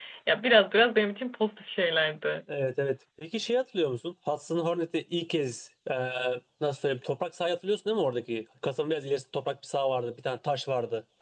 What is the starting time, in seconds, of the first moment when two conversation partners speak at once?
none

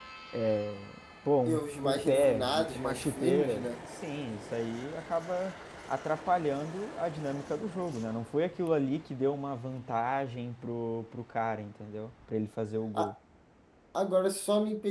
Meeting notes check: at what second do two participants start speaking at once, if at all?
1.5 s

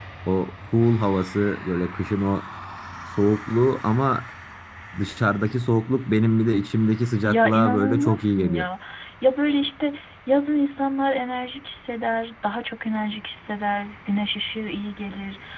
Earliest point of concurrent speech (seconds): 7.2 s

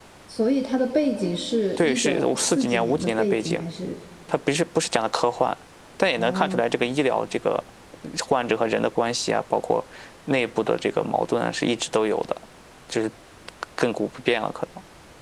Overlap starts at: 1.8 s

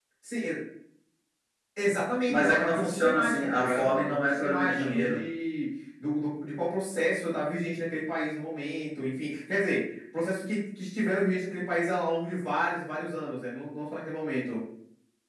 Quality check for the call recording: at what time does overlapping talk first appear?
2.3 s

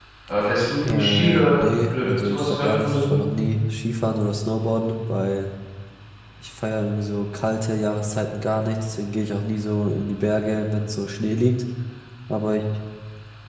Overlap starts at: 0.8 s

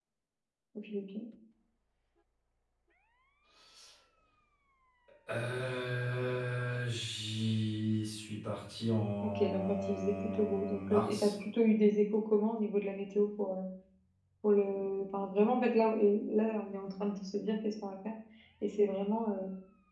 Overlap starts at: 9.2 s

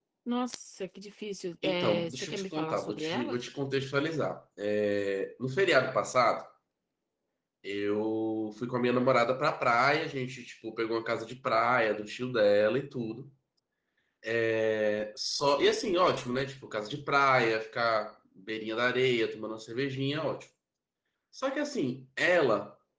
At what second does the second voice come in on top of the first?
1.6 s

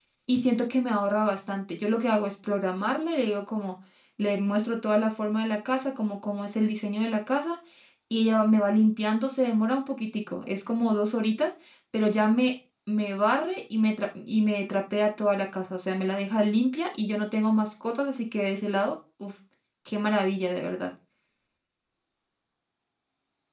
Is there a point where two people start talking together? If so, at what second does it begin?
none

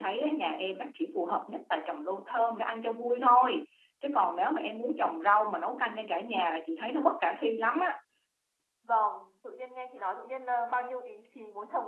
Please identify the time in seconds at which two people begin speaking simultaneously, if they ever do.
none

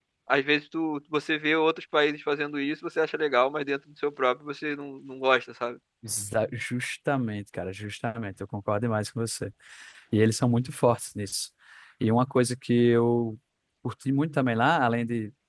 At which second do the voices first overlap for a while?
none

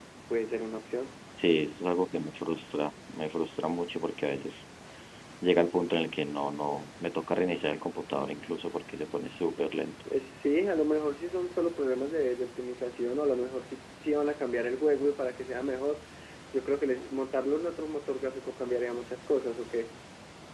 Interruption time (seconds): none

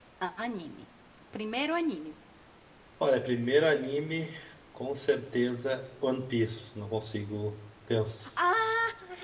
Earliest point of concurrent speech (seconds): none

